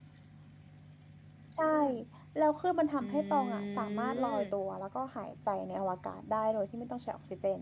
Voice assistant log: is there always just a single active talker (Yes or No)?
No